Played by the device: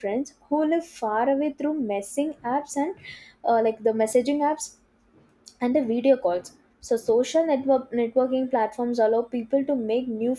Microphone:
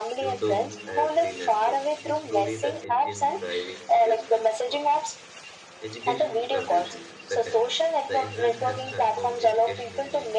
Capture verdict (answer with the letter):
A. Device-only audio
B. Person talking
B